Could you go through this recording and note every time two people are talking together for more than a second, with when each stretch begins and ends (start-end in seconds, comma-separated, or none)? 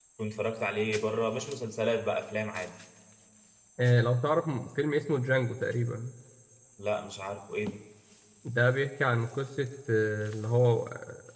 none